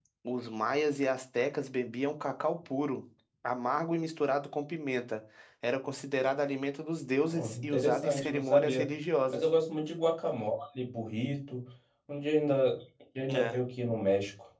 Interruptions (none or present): present